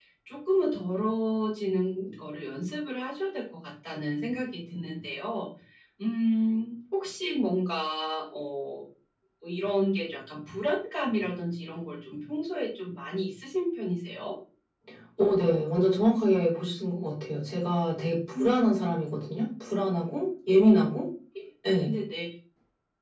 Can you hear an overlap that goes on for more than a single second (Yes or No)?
No